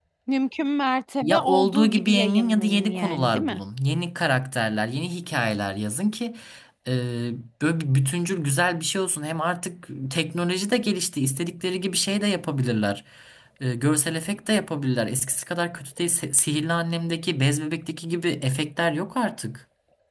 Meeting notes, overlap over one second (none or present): present